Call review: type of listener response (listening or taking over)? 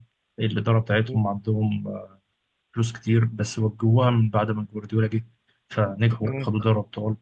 listening